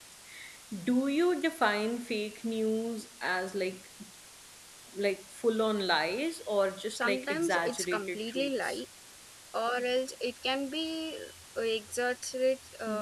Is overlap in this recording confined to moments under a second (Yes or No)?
No